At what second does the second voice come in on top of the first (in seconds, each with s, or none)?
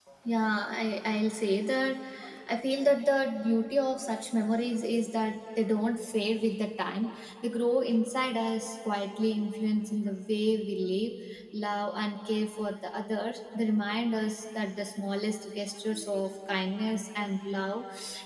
none